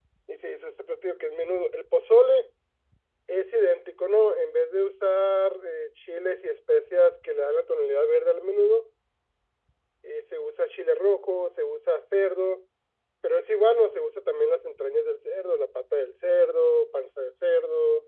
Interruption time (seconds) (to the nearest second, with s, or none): none